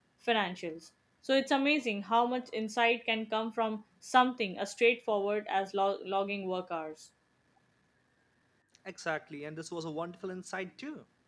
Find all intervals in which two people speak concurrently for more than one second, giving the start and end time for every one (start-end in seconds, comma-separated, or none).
none